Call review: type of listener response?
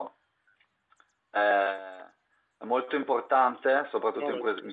listening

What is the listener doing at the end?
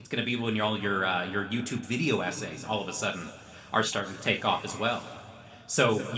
listening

